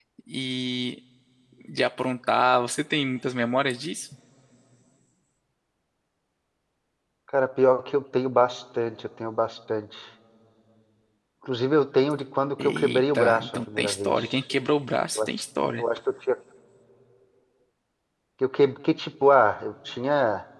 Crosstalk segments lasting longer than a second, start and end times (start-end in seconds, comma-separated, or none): 12.6-14.2